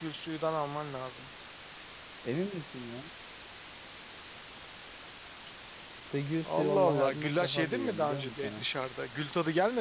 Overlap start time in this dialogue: 6.4 s

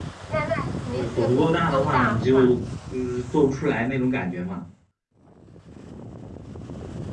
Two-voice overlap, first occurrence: 0.9 s

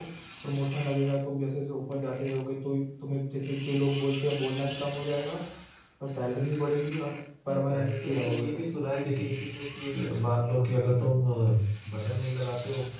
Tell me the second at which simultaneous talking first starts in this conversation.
7.5 s

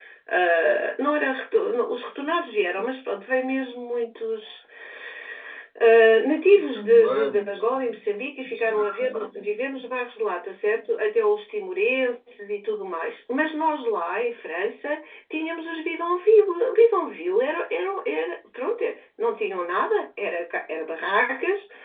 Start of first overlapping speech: 6.6 s

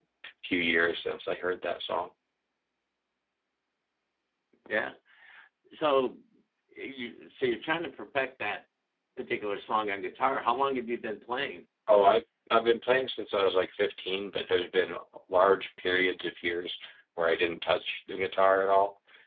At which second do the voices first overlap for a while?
none

